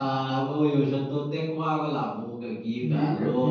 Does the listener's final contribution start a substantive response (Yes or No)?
Yes